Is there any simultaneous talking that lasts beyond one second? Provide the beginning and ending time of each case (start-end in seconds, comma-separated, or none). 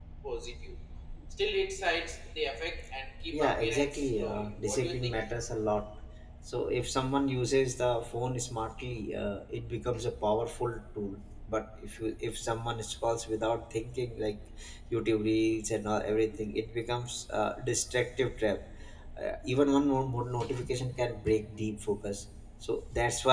3.3-5.2